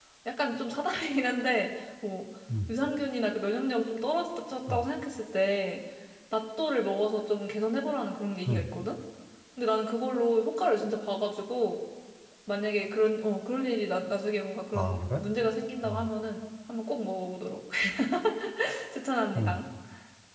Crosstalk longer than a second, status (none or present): none